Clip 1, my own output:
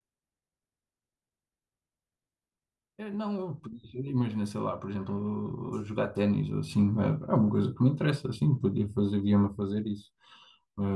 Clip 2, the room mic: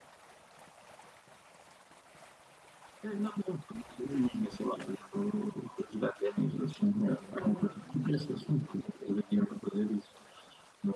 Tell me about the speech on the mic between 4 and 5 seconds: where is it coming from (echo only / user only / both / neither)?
echo only